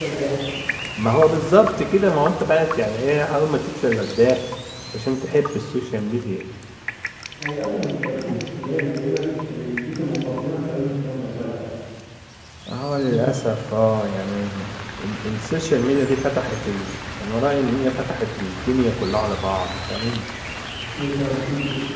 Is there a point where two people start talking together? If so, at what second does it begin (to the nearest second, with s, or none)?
none